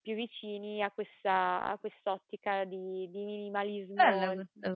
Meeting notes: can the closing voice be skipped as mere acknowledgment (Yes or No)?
No